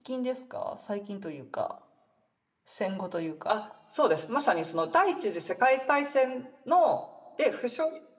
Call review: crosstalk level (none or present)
none